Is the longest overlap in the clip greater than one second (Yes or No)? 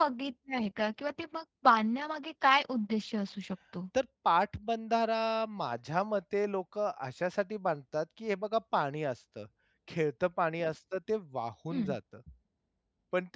No